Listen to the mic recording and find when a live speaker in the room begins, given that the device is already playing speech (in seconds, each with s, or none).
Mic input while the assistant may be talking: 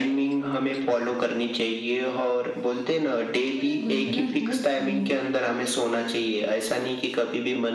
3.5 s